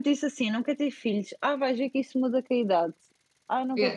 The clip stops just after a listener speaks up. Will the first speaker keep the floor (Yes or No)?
No